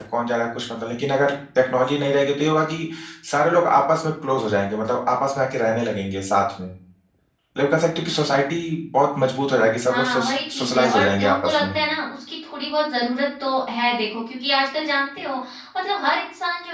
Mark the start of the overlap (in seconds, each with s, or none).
9.9 s